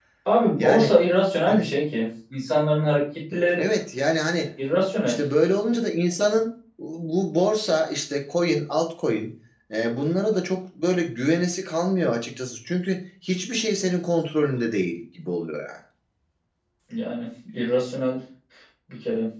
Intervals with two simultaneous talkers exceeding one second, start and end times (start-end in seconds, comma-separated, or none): none